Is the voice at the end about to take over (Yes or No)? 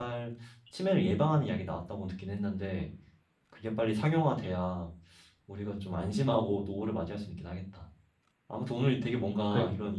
No